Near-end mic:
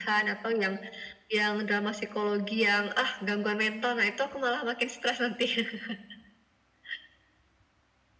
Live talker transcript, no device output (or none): none